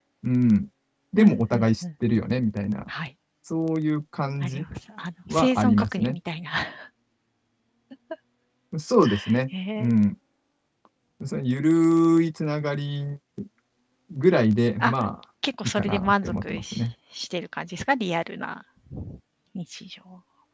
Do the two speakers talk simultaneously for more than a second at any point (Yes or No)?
Yes